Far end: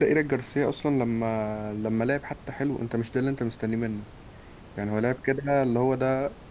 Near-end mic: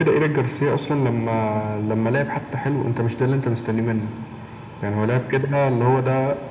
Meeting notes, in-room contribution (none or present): none